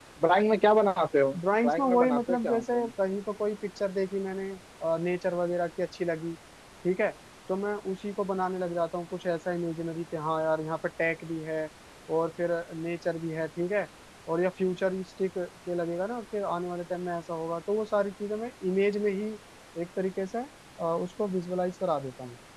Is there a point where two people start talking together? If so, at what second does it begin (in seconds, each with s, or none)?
1.6 s